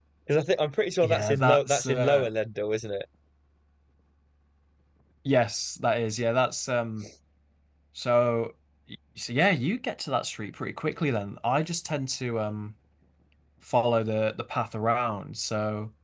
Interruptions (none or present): present